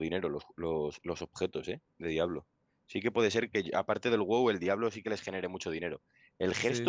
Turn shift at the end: No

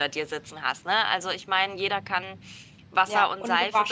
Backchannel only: No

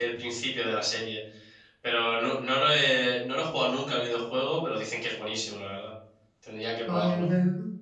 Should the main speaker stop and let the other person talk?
Yes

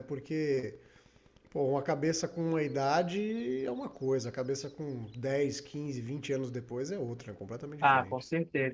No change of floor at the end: No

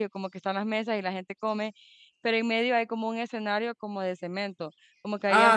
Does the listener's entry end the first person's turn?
Yes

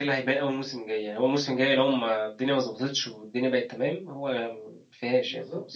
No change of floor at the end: No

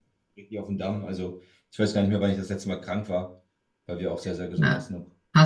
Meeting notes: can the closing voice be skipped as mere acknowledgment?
No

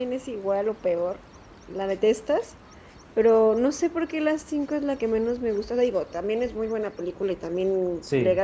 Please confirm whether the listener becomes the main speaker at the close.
No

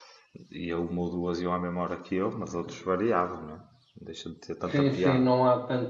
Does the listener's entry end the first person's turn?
Yes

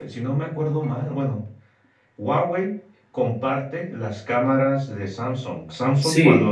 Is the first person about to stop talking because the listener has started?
No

